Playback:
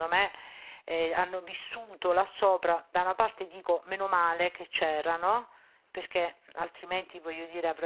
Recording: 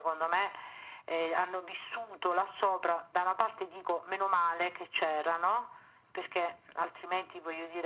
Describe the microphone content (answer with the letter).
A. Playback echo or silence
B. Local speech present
A